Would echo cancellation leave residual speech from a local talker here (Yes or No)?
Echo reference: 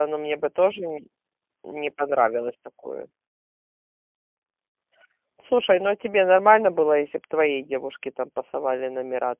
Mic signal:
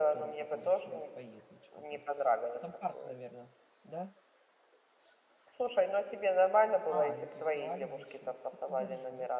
Yes